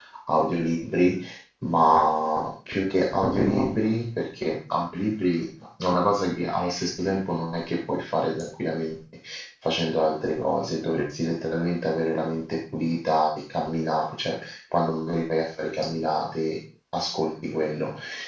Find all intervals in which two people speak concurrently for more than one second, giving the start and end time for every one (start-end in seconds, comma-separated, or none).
none